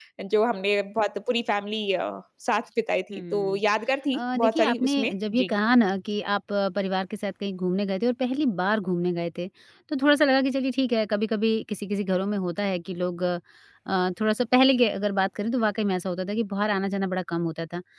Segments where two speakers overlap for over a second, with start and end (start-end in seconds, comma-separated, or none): 4.1-5.5